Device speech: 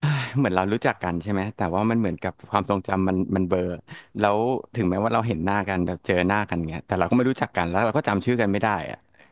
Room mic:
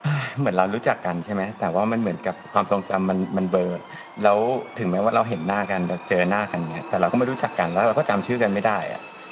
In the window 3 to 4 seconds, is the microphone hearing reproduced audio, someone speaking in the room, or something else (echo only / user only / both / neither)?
echo only